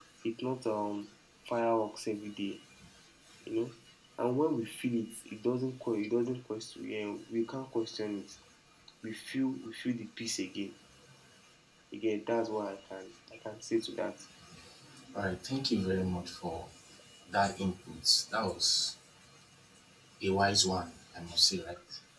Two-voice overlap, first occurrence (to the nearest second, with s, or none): none